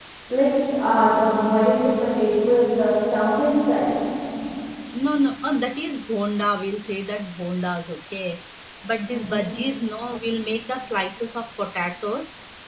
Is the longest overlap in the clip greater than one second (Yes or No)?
No